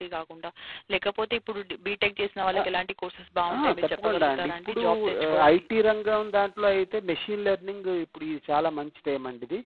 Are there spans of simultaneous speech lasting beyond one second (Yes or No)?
Yes